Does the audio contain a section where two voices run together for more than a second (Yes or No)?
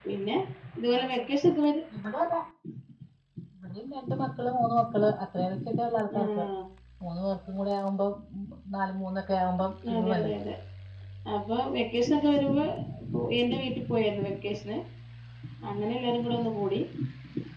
No